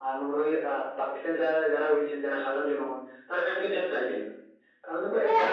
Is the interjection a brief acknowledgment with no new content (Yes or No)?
No